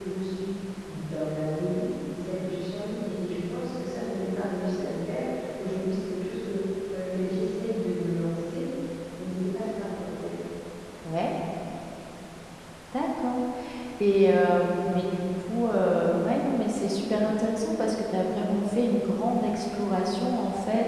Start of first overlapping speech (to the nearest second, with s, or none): none